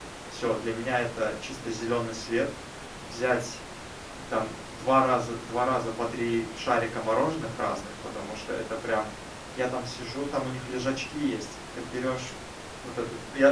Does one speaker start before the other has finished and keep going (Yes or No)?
No